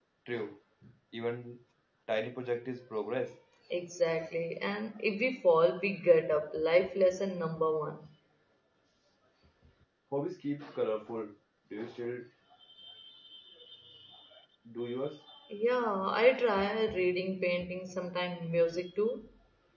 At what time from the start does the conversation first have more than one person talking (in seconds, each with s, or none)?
none